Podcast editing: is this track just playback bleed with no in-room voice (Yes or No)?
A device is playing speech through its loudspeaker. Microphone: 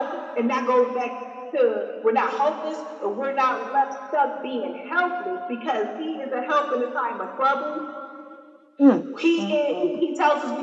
No